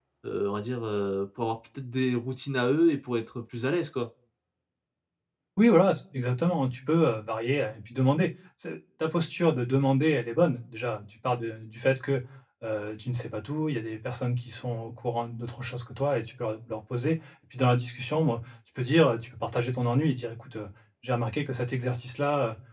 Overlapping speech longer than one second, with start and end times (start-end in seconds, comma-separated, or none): none